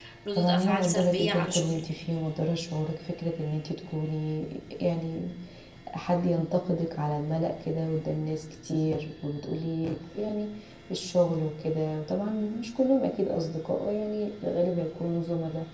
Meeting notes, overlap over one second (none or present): present